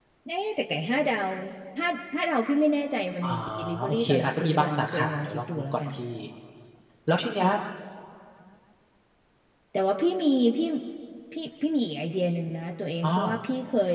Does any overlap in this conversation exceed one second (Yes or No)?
Yes